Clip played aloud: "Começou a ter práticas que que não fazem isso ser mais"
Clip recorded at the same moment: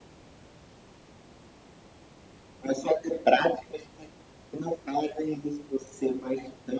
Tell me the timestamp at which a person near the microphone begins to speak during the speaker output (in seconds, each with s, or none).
none